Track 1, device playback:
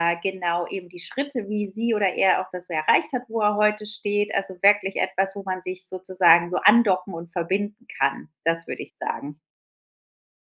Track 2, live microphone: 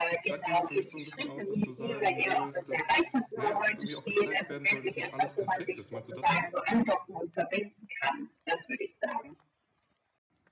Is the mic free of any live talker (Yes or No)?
No